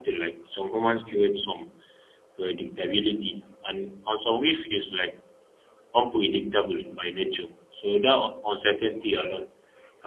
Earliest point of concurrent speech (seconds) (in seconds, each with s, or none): none